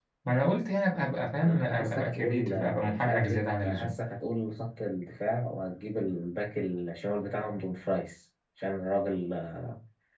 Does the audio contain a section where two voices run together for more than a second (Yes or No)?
Yes